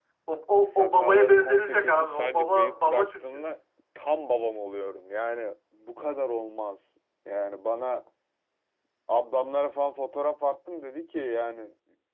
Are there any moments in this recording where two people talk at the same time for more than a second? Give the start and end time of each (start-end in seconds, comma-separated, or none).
0.7-3.4